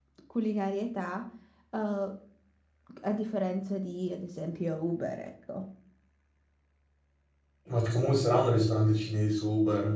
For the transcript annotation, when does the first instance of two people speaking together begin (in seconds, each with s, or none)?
none